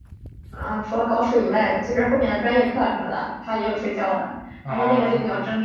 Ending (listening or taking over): listening